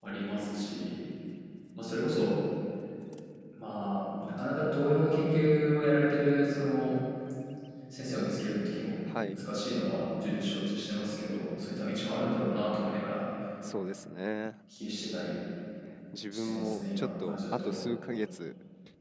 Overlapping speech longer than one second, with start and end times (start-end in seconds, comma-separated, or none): 16.3-17.8